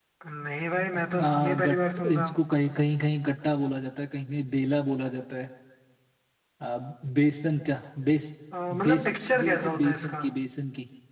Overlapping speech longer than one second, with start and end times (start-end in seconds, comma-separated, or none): 1.0-2.4, 8.7-10.2